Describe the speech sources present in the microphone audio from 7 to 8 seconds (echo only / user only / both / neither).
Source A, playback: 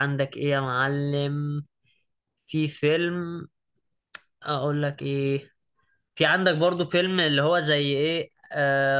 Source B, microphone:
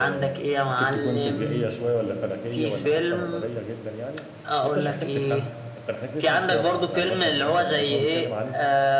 both